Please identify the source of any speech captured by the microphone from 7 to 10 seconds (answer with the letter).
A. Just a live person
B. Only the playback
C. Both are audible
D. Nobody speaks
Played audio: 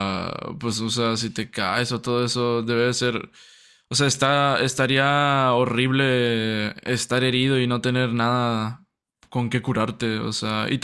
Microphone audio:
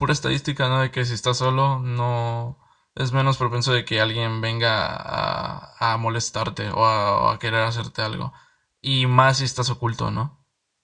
A